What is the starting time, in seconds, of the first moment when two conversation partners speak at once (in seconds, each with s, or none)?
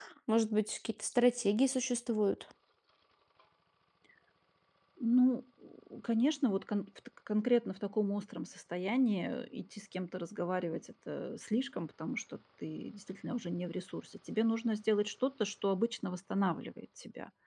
none